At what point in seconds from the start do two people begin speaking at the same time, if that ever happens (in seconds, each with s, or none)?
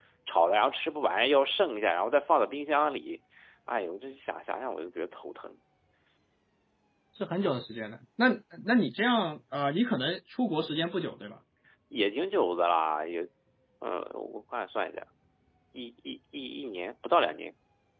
none